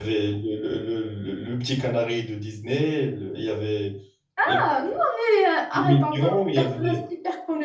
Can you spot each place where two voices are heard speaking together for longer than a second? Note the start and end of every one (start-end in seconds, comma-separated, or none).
5.7-7.0